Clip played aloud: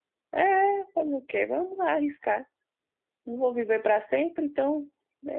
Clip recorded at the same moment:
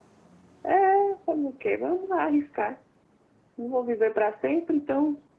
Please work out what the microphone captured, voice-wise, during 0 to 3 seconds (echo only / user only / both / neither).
echo only